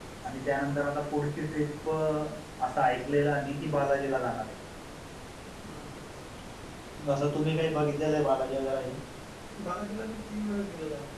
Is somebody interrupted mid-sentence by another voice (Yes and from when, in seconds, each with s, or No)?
No